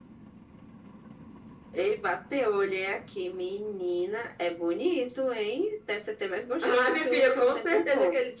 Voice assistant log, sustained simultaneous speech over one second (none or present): present